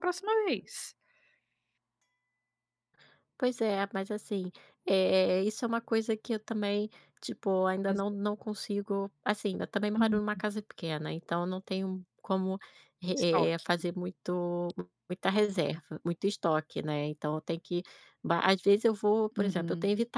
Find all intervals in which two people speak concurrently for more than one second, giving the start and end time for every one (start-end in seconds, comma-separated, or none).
none